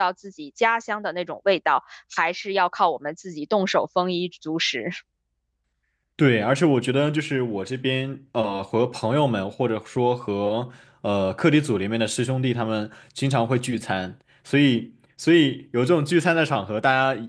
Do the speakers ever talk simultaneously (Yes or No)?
No